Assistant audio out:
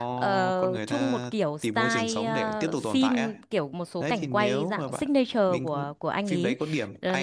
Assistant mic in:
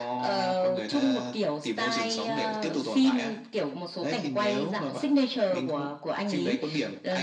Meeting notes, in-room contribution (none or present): none